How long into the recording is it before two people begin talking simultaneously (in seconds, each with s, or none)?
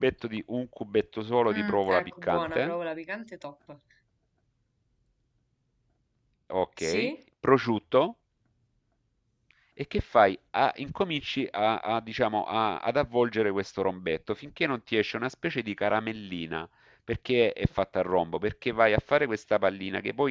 1.5 s